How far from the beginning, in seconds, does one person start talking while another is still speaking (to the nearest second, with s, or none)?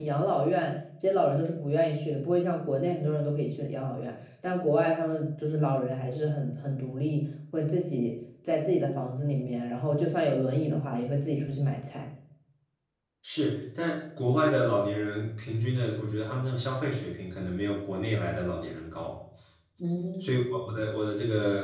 none